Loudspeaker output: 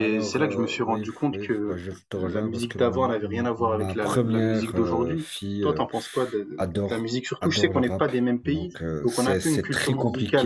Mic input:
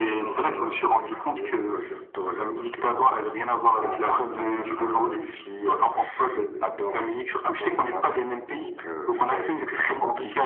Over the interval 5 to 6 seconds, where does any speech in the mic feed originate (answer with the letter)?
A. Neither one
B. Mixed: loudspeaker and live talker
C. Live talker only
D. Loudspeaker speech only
D